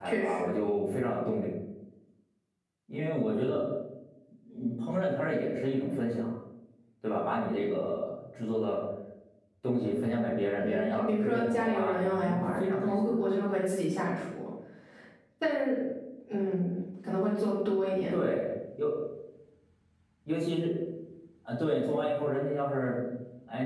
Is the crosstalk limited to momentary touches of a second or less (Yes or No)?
No